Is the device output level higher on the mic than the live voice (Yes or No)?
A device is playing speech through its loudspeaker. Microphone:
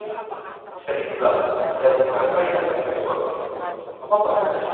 No